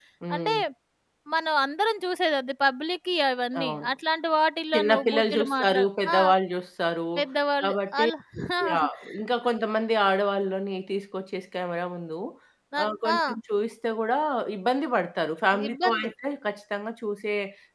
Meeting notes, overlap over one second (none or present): present